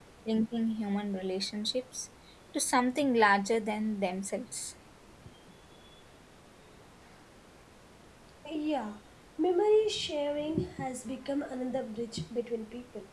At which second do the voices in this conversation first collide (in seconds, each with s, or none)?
none